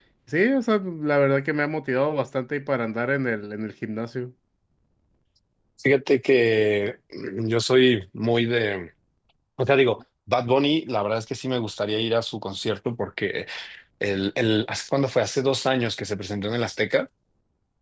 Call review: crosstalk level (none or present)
none